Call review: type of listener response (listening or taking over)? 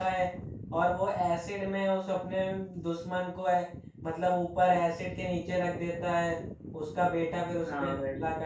taking over